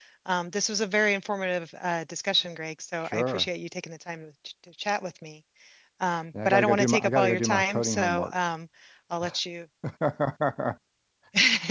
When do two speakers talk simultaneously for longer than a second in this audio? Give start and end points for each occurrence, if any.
6.5-8.4

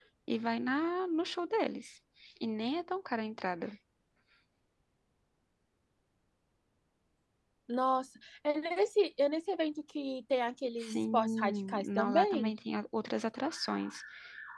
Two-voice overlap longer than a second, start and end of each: 10.8-12.5

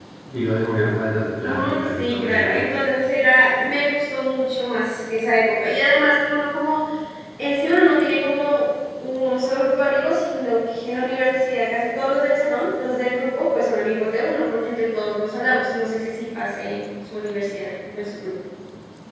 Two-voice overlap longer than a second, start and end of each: 1.4-2.7

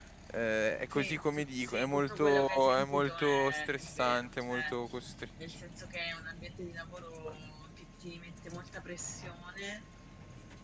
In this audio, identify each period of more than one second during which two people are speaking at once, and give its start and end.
0.9-4.6

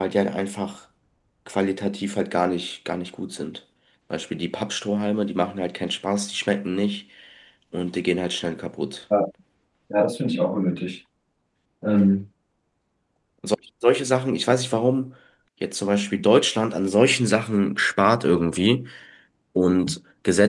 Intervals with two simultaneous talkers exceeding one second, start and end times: none

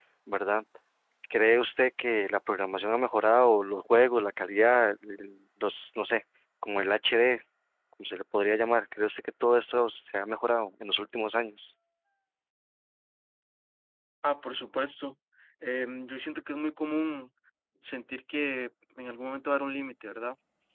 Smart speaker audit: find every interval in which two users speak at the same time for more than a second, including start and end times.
none

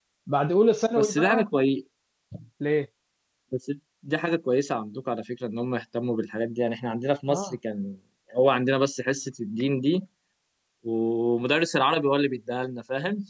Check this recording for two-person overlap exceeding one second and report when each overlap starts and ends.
none

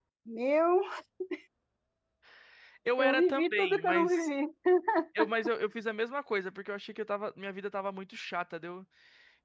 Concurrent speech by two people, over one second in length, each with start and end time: 3.0-4.3

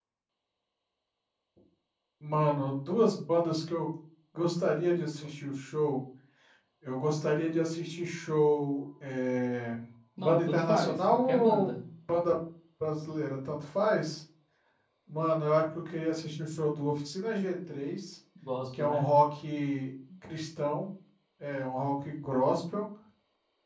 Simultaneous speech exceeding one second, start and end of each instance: 10.2-11.8

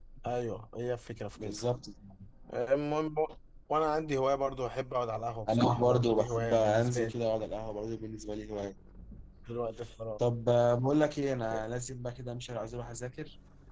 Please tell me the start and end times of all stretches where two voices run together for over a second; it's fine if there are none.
5.5-7.1

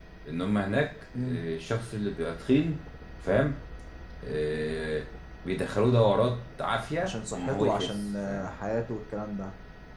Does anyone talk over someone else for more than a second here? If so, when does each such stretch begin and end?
7.0-8.5

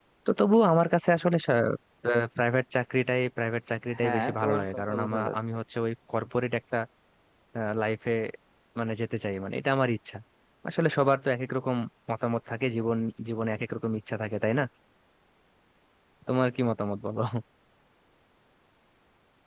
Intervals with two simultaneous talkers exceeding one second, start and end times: 4.0-5.4

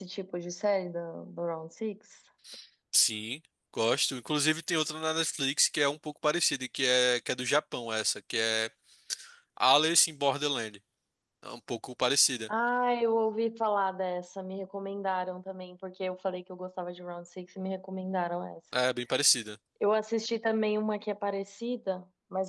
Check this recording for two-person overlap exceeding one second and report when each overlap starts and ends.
none

